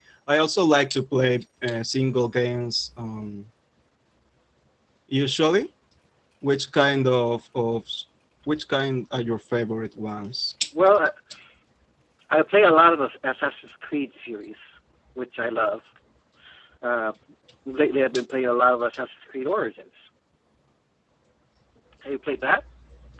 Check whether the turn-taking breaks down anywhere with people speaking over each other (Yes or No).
No